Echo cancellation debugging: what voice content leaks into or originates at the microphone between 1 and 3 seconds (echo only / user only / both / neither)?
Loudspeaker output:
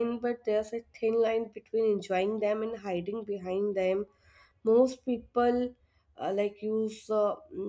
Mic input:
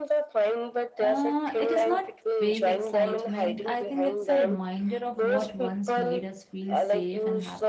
both